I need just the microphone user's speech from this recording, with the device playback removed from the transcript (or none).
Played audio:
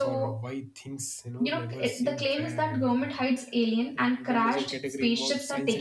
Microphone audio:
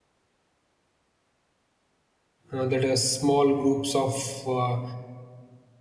uh, that a small groups of uh,